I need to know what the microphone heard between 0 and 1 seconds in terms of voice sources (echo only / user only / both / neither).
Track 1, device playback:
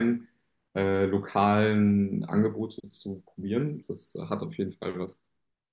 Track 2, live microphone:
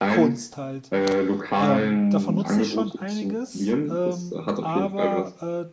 both